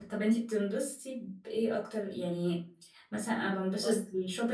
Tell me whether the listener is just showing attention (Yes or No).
Yes